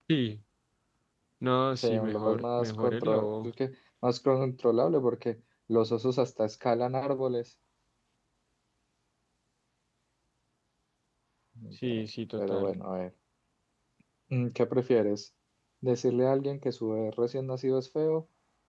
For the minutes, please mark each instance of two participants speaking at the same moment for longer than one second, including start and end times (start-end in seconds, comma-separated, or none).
1.8-3.5